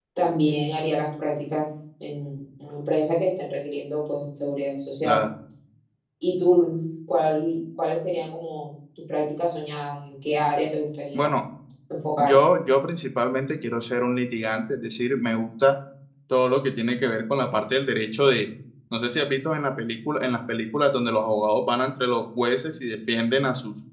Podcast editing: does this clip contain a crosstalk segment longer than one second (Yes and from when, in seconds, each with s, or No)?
No